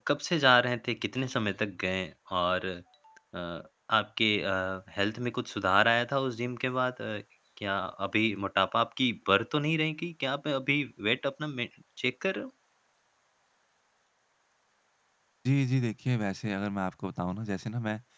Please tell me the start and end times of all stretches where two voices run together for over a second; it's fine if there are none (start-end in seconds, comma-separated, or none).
none